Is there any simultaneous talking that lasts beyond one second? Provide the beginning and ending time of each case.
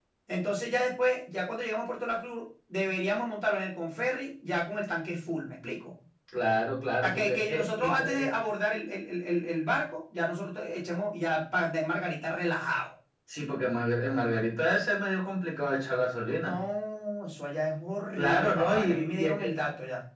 7.0-8.3, 18.2-19.5

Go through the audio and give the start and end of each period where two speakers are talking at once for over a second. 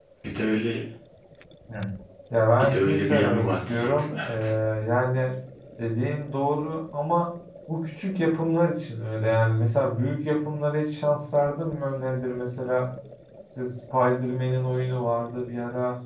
2.6-4.3

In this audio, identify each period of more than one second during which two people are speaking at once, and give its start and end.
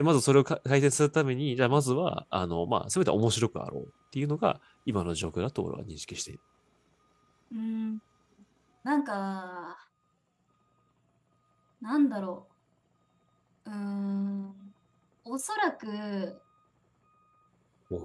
none

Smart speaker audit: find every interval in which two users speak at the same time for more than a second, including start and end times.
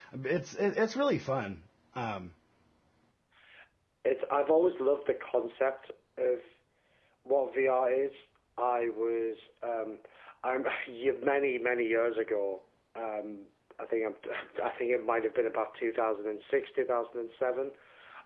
none

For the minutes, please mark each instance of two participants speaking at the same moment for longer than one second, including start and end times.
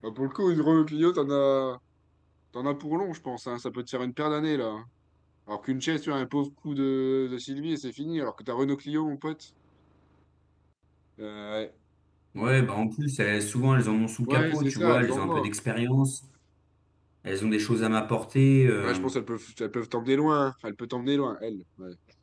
14.3-15.6

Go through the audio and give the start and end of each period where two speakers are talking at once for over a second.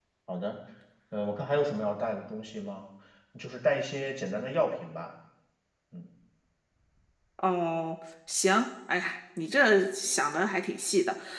none

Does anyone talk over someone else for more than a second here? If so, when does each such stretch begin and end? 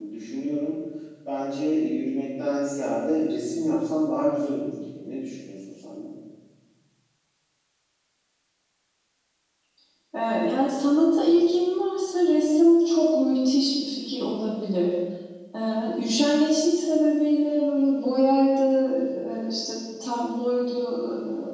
none

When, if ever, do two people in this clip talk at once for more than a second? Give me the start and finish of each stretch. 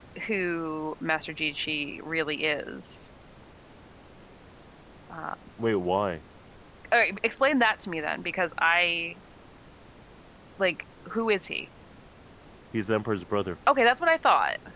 none

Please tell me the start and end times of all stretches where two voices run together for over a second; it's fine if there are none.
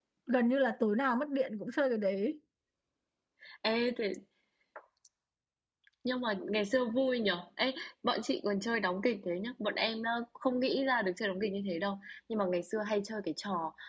none

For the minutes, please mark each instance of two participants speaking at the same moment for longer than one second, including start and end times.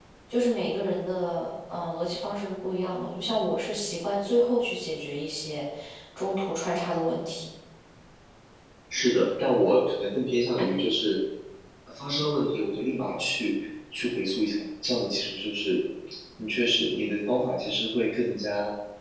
none

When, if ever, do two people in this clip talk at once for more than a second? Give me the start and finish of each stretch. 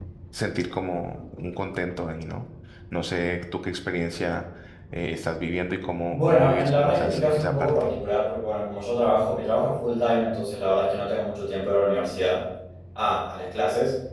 6.1-7.7

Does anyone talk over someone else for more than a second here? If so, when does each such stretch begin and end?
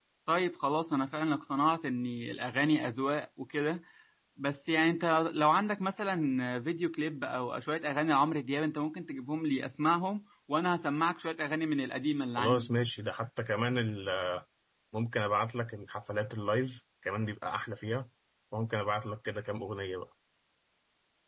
none

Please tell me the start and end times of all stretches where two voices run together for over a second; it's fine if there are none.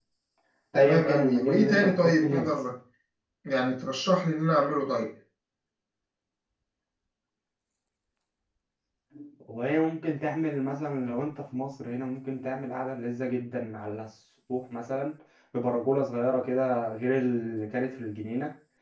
0.8-2.5

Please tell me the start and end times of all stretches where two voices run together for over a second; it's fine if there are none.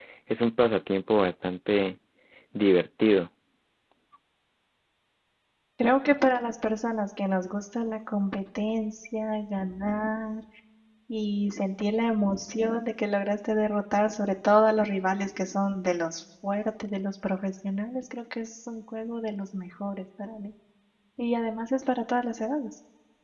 none

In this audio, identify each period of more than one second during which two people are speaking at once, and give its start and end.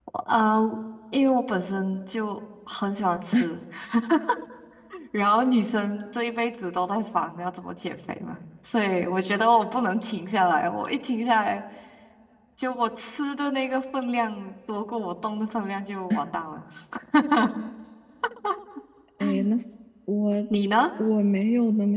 none

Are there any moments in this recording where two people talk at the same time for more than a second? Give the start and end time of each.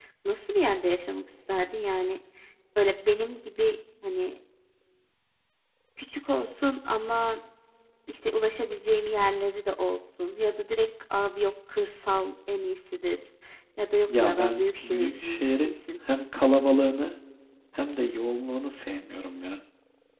14.1-15.8

